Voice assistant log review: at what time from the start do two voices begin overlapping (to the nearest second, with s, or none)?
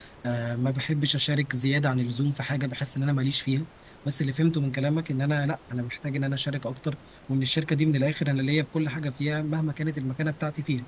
none